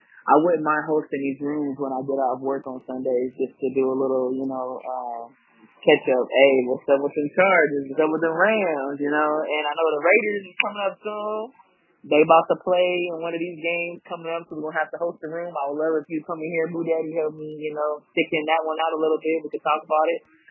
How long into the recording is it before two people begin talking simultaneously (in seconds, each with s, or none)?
none